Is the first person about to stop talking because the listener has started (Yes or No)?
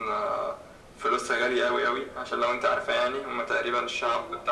No